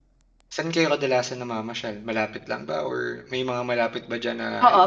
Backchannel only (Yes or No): No